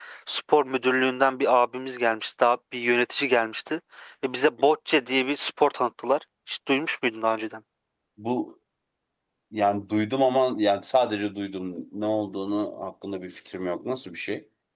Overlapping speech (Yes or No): No